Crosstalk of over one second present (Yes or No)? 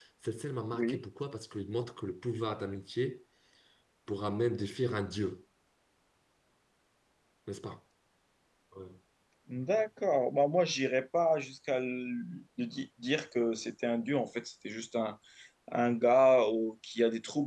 No